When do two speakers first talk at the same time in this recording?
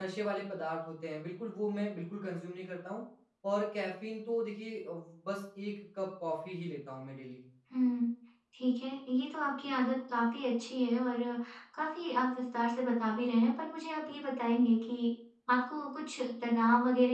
none

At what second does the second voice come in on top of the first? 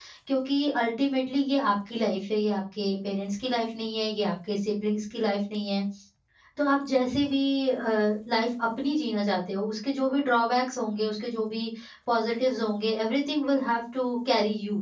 none

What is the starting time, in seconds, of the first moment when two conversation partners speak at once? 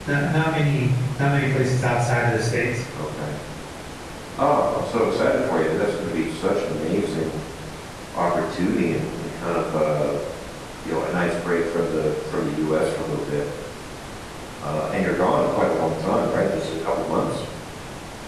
none

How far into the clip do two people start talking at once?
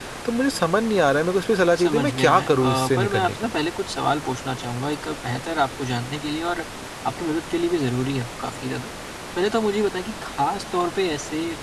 2 s

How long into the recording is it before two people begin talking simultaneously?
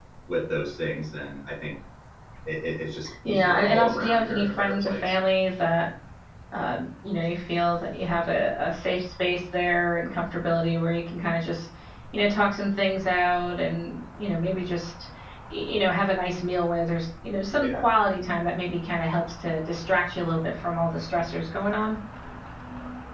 3 s

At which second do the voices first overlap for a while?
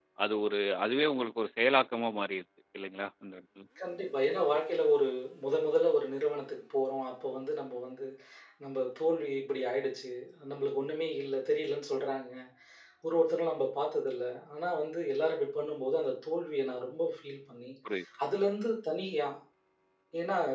none

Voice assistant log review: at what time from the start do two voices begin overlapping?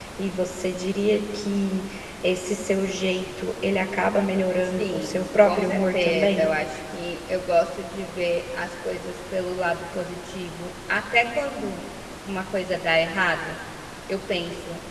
5 s

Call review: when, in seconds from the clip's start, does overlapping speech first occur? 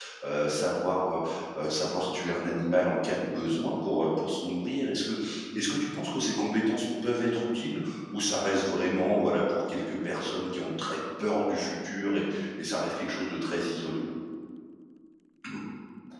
none

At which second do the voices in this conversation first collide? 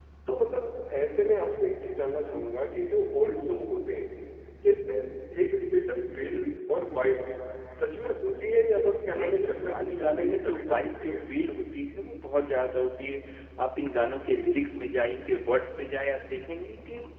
9 s

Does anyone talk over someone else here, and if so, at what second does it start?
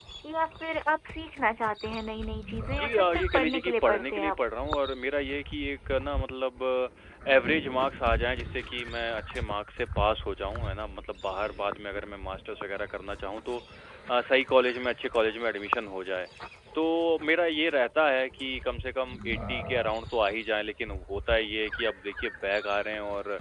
3 s

